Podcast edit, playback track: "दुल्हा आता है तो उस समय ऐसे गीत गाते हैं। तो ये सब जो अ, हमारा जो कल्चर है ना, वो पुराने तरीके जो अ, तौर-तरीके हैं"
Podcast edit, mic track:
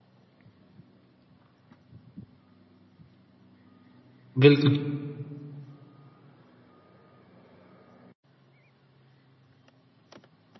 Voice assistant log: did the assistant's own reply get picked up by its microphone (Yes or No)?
No